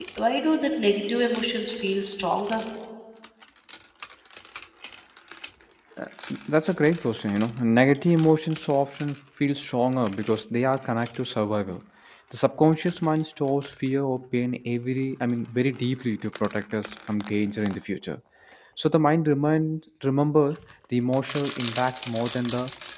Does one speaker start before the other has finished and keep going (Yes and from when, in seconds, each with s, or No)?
No